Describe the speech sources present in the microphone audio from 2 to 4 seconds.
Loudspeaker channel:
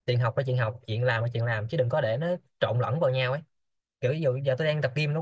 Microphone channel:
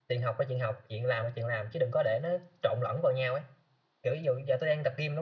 echo only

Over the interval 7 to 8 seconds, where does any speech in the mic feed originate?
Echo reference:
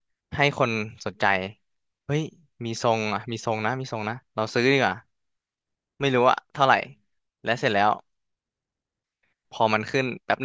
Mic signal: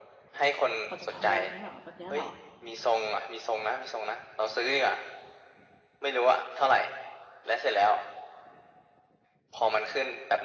echo only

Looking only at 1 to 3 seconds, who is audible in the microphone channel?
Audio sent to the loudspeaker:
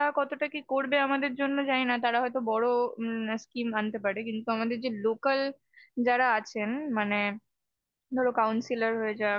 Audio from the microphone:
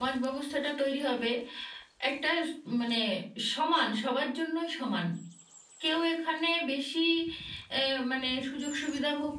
user only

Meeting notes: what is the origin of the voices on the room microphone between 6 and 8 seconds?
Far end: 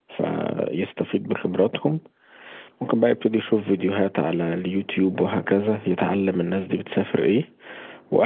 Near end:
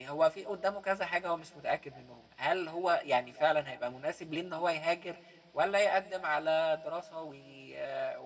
user only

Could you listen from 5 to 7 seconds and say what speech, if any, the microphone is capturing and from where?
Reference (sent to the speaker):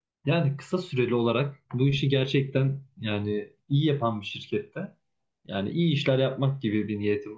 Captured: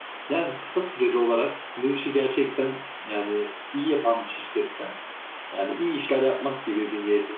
echo only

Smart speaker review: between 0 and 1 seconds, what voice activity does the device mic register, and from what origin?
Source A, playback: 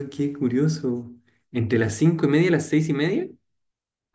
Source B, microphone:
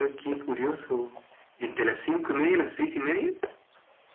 echo only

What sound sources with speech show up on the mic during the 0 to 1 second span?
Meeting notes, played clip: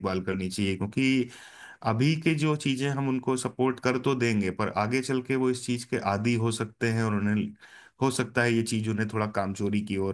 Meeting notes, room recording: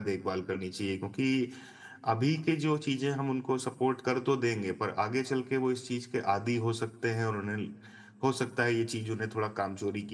echo only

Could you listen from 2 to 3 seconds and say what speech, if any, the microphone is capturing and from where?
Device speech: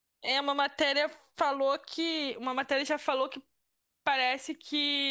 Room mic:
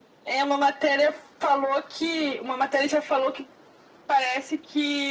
echo only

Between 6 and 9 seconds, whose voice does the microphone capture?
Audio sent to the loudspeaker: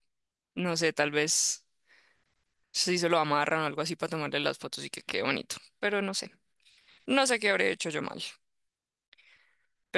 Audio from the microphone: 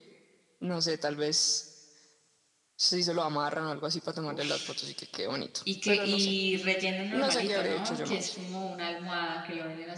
both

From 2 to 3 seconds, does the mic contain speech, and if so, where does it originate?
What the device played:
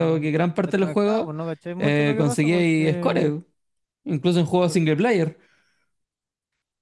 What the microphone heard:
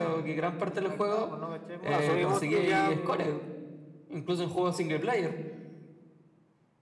both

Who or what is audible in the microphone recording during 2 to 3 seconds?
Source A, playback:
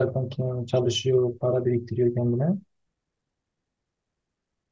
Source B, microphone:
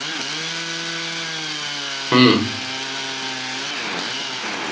user only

